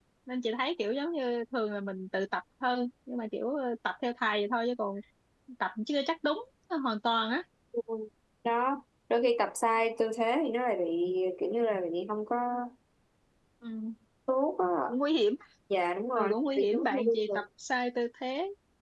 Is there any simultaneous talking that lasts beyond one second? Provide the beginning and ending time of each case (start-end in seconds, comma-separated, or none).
16.2-17.4